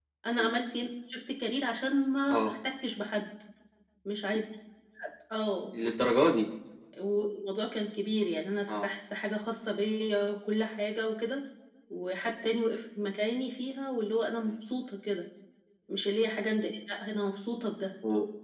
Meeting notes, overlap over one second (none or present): none